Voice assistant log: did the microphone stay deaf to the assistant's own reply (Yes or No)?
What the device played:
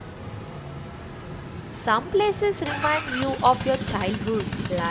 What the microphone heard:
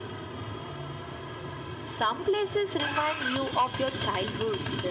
No